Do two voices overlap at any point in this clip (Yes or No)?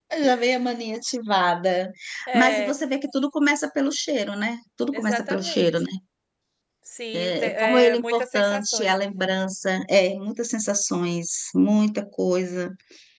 Yes